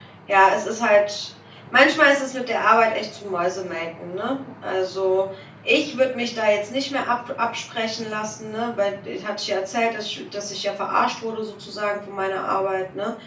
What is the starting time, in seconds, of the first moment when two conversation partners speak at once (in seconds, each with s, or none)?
none